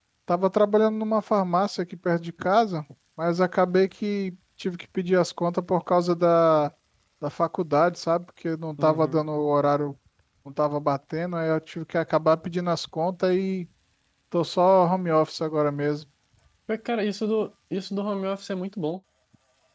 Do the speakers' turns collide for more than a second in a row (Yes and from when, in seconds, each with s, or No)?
No